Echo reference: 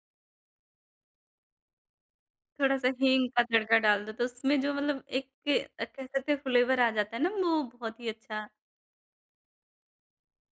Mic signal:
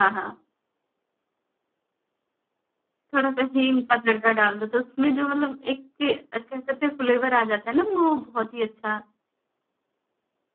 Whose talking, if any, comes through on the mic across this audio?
echo only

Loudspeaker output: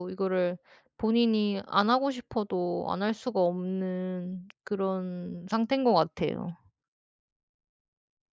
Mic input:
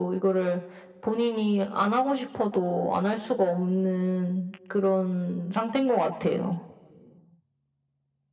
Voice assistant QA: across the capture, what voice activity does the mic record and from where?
echo only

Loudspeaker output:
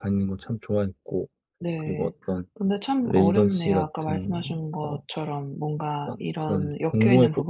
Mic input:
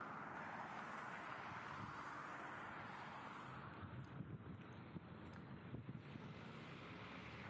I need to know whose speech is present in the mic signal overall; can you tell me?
neither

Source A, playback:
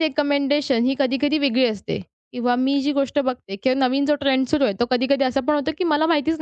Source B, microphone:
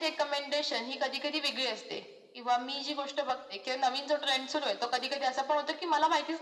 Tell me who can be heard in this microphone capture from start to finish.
echo only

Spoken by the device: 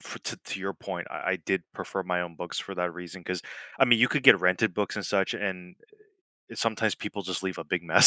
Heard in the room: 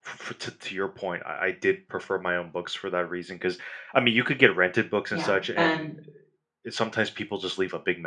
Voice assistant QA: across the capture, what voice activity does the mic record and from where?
both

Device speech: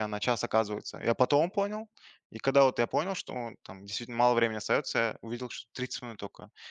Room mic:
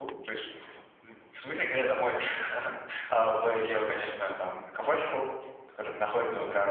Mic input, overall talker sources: user only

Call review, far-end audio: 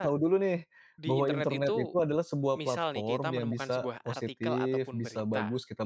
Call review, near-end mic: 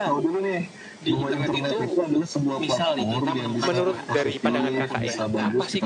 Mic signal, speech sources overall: both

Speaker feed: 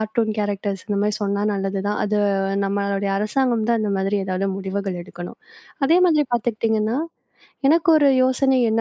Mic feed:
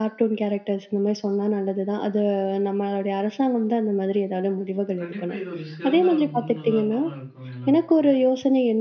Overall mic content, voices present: both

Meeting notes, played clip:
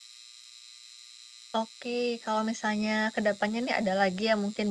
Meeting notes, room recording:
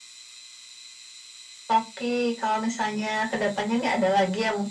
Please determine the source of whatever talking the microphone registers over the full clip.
echo only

